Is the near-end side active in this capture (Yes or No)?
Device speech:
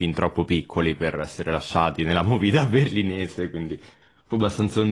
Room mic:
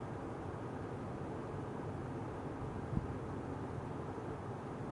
No